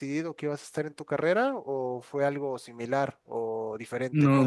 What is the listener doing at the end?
taking over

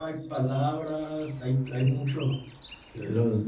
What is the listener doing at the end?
taking over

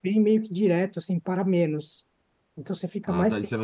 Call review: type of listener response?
taking over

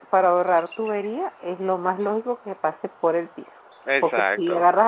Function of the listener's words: listening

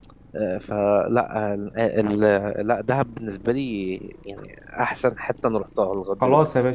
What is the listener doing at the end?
taking over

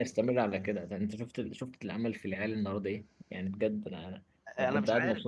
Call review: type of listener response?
taking over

